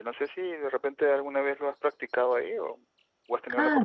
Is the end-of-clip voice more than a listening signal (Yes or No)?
Yes